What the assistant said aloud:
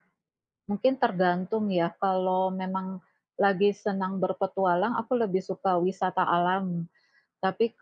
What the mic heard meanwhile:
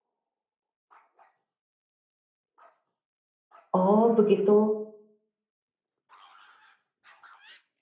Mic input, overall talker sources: user only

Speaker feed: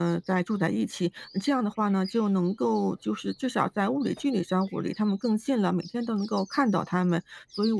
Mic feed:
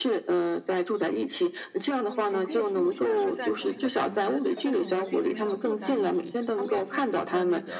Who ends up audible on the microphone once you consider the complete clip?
both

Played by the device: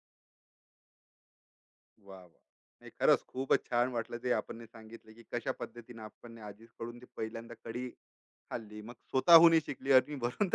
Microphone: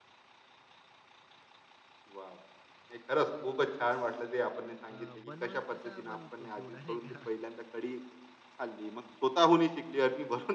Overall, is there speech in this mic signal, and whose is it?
both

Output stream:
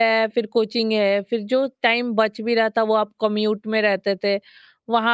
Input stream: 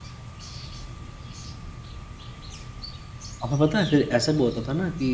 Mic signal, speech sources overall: user only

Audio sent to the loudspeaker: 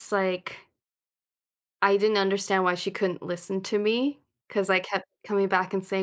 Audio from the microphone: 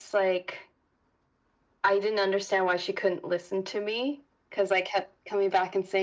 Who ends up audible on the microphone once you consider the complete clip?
echo only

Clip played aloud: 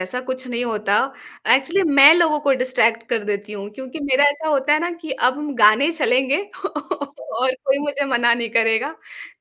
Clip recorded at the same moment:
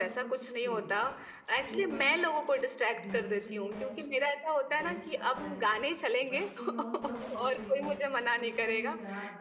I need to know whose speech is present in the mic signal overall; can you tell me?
both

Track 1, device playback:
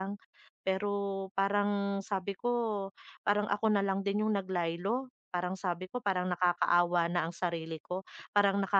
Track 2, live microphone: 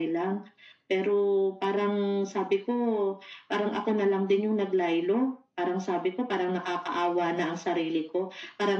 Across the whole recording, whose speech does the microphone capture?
echo only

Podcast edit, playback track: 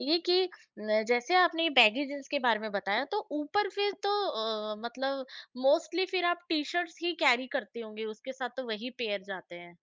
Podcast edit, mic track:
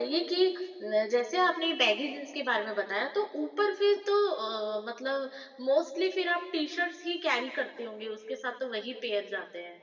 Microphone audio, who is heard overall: echo only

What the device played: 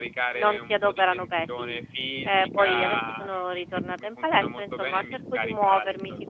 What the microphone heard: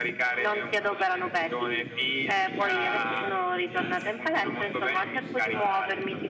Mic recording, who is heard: both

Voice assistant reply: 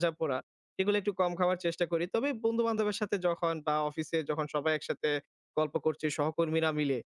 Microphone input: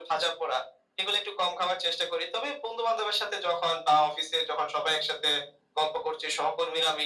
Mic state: echo only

